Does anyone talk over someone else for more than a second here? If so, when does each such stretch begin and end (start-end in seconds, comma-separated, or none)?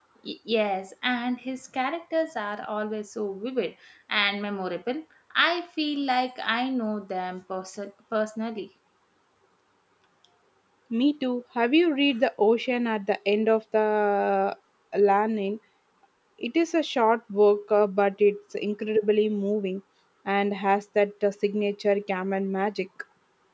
none